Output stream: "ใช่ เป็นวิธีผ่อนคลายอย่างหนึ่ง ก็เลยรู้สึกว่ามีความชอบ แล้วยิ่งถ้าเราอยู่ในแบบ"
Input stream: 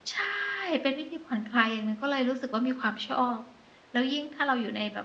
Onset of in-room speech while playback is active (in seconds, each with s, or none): none